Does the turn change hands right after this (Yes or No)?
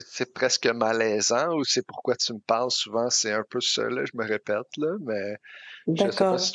No